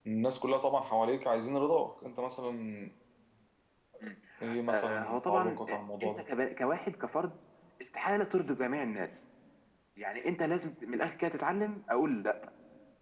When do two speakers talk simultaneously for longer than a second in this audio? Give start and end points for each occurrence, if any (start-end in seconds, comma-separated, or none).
4.7-6.2